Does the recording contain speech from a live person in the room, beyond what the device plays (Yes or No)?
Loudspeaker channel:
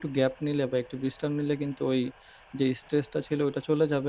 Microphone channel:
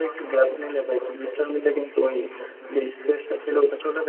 No